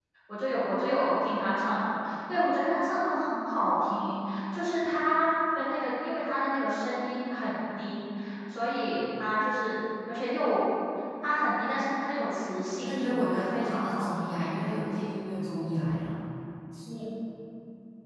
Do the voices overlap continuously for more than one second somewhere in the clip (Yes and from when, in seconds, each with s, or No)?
Yes, from 12.8 s